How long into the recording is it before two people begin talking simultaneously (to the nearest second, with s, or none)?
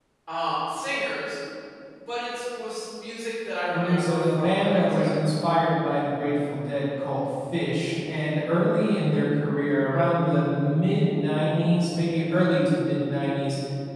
4 s